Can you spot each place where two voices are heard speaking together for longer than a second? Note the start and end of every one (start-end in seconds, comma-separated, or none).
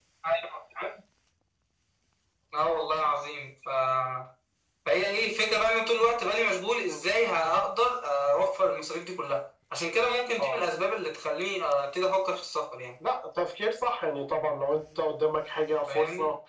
none